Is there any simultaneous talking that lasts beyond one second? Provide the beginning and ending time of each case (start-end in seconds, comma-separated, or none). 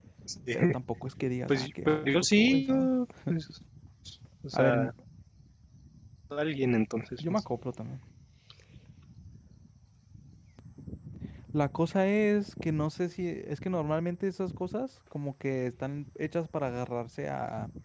1.5-2.9